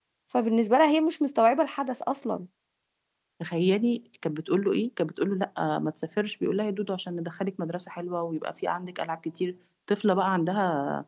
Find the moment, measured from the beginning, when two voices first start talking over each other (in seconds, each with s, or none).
none